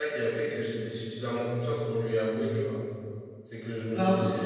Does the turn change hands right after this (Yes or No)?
No